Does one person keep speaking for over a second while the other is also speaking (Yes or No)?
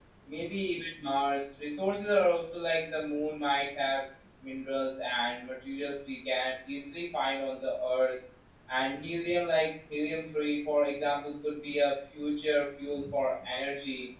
No